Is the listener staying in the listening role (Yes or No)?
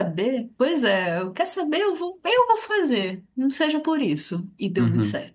No